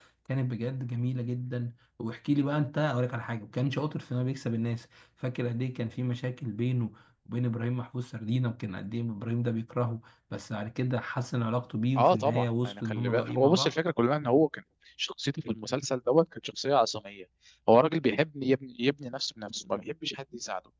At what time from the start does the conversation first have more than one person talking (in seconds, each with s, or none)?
12.0 s